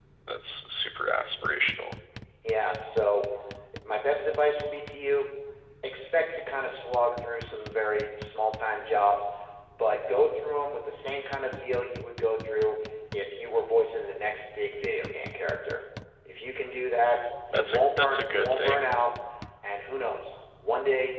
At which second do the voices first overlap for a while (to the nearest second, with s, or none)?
18 s